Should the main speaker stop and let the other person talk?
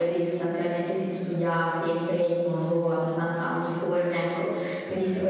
No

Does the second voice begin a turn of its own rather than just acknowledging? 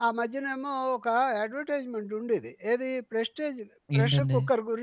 No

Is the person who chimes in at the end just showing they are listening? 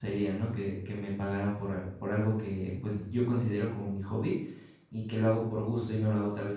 Yes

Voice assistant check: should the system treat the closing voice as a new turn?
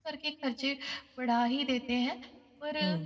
No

